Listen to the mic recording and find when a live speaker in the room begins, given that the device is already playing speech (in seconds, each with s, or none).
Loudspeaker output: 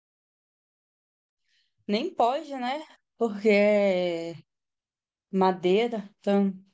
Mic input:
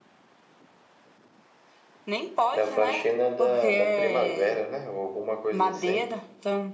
2.5 s